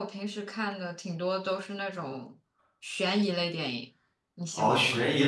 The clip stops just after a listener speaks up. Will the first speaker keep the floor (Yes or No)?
No